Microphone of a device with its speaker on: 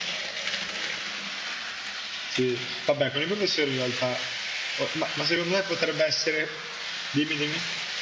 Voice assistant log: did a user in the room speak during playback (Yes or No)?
Yes